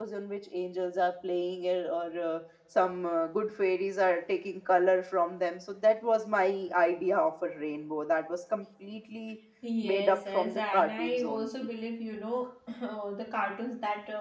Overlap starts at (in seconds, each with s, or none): 9.8 s